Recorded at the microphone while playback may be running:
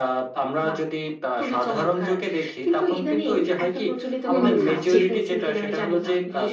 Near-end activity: present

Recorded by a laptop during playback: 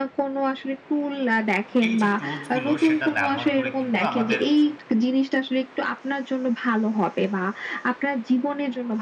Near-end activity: present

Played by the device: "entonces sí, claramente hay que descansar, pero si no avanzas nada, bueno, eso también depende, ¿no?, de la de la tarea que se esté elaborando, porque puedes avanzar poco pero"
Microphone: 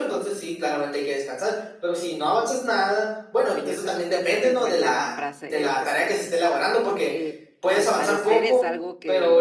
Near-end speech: present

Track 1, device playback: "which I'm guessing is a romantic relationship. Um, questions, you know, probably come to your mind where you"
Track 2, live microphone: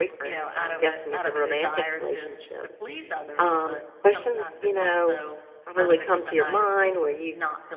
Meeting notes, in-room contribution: present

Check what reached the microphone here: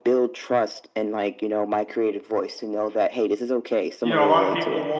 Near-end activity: present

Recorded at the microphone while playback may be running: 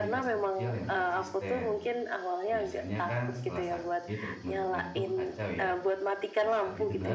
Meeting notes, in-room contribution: present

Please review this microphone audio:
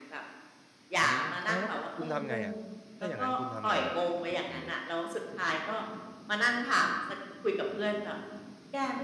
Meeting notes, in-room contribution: present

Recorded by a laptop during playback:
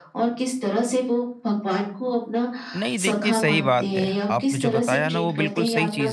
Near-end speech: present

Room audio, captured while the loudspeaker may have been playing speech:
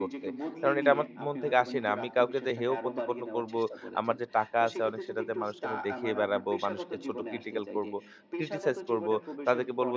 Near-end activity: present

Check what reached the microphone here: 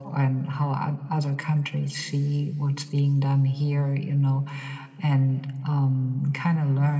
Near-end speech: none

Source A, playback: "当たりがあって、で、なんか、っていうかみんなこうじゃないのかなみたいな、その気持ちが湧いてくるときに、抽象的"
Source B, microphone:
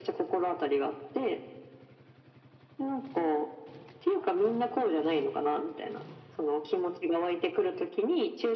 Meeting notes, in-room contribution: none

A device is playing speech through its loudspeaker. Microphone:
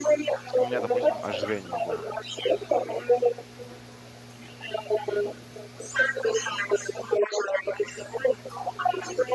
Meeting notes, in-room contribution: present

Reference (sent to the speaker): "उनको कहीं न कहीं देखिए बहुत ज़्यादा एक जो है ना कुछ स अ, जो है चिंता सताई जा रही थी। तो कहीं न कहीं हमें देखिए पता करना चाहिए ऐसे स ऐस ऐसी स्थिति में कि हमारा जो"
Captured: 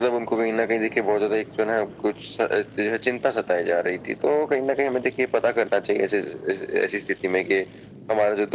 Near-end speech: none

